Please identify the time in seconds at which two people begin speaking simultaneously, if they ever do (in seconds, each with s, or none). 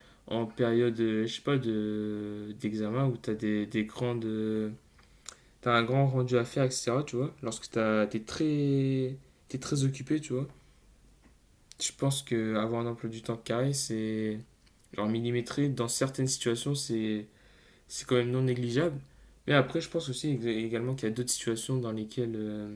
none